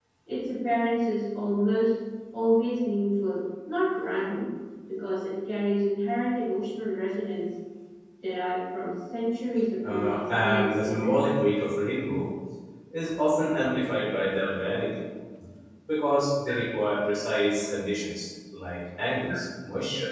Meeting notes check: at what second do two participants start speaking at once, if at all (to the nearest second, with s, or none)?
10 s